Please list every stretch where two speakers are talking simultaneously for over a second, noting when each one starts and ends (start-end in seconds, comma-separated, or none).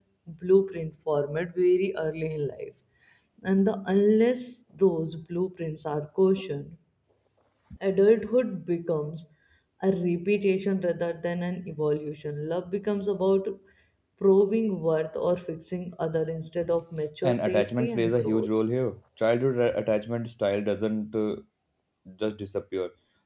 17.2-18.5